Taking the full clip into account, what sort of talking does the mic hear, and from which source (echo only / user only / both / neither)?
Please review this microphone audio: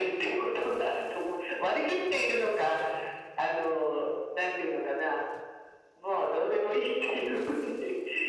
echo only